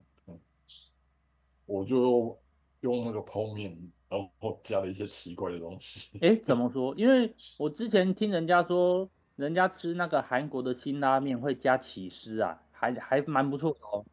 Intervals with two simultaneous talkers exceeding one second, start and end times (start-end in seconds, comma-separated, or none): none